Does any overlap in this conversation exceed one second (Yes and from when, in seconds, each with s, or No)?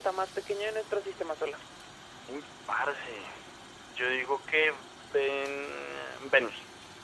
No